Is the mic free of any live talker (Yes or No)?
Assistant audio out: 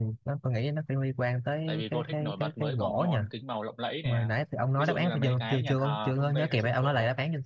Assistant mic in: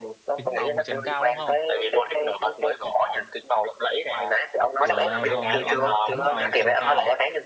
No